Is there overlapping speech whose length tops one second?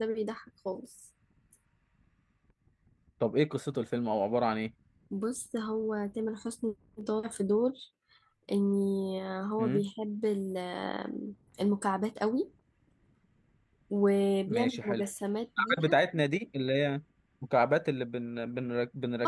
No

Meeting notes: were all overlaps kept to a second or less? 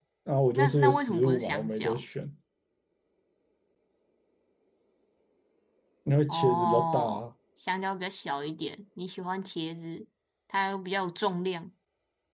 No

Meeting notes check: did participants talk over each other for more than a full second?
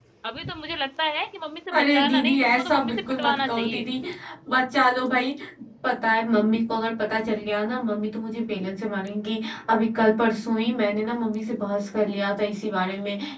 Yes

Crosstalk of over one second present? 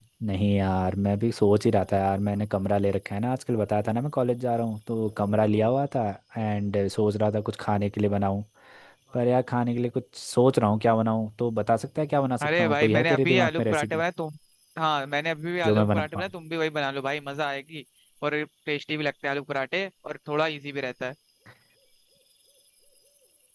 Yes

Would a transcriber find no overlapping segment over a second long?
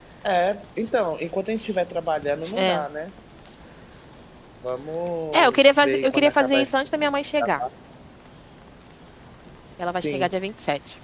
No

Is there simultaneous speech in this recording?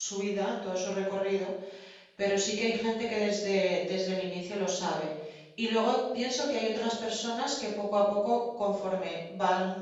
No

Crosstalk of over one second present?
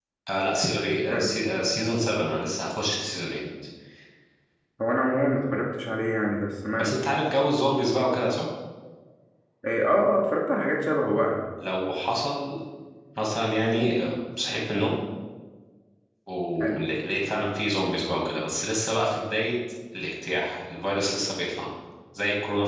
No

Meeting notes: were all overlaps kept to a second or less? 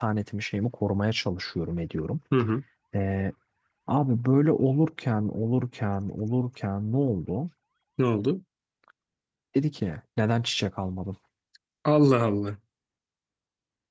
Yes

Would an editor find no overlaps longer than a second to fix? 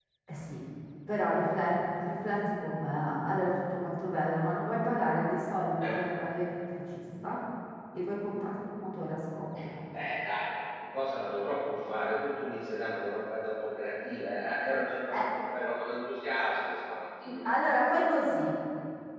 Yes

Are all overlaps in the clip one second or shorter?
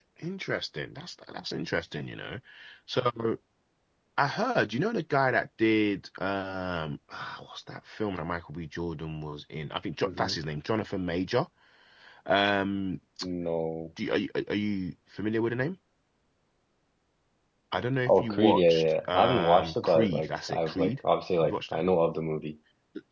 No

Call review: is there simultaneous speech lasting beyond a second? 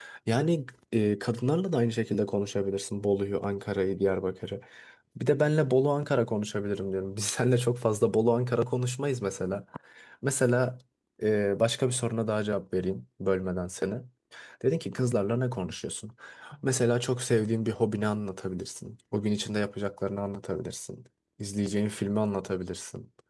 No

